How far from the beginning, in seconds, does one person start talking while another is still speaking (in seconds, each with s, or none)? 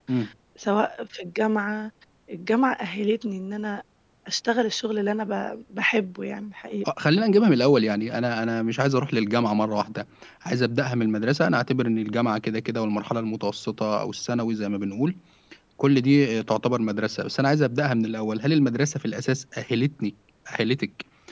none